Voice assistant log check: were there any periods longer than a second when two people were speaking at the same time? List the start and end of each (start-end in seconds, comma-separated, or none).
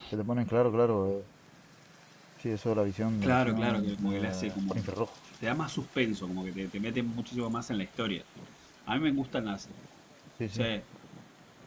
3.2-4.9